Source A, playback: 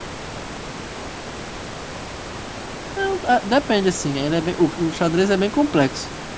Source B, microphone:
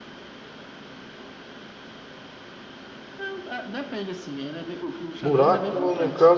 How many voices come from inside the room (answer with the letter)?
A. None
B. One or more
B